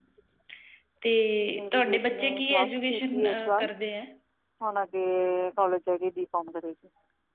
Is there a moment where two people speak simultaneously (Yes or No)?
Yes